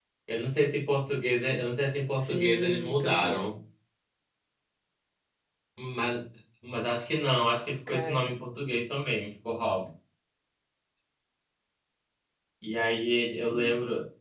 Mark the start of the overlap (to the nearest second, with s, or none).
2 s